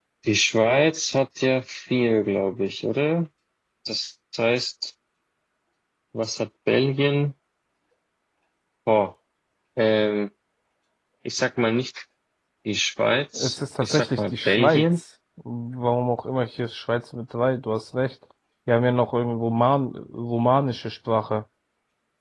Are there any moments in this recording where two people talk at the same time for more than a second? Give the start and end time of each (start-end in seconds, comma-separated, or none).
13.4-14.8